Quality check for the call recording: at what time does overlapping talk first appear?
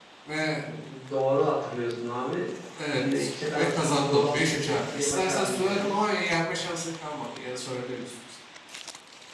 3.0 s

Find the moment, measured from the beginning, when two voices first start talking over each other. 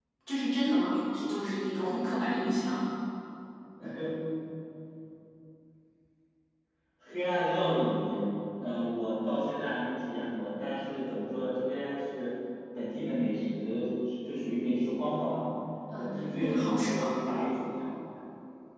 16.0 s

